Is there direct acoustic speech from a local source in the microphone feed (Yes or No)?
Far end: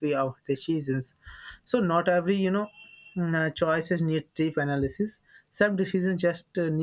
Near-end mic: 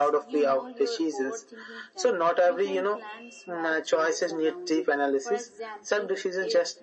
Yes